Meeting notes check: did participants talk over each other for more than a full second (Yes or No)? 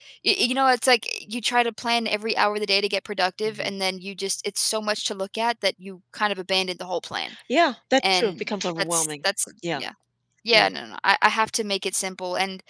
No